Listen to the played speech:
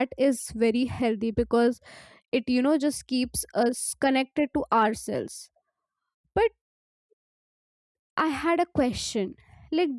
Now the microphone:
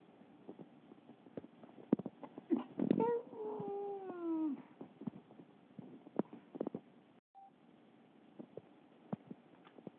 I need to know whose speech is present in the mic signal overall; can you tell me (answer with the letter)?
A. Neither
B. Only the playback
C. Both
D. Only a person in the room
A